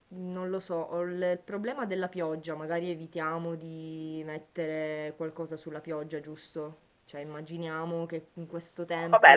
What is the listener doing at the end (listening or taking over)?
taking over